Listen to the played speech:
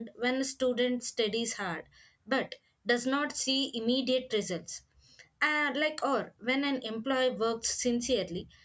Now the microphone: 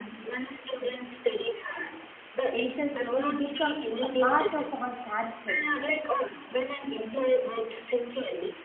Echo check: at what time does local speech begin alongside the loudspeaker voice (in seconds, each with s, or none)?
2.5 s